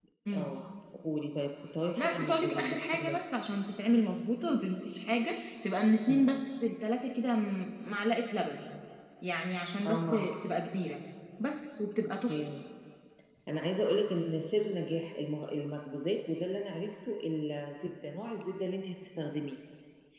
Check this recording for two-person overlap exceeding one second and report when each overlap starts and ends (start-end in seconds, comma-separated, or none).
2.0-3.2